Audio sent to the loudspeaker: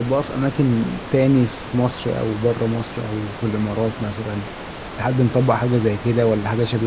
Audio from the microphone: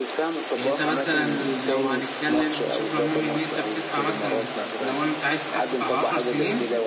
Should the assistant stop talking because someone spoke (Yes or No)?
Yes